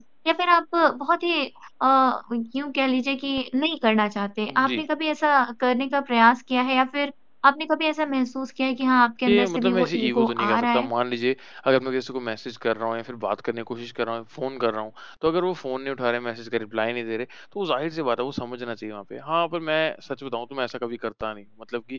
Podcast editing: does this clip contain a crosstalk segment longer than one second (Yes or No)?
Yes